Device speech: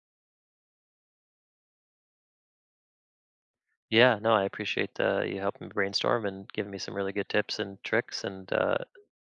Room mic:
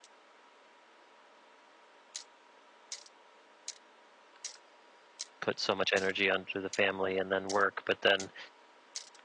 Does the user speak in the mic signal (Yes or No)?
Yes